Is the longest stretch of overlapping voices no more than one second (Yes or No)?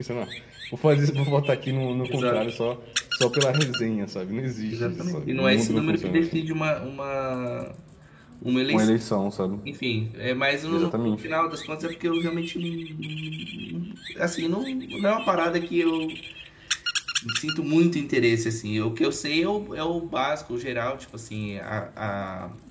No